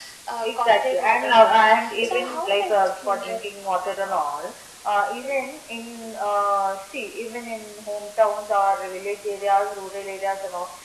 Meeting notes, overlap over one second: present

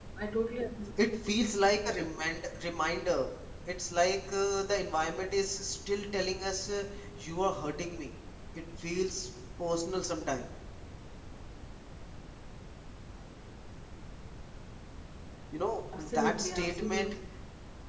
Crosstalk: present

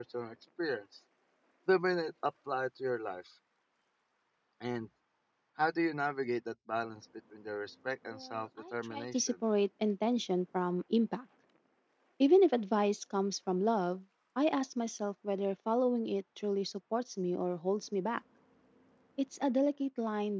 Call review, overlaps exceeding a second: present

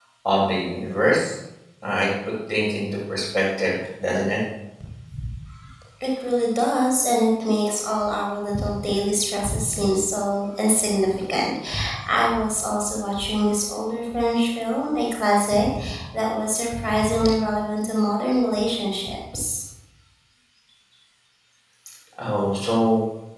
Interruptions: none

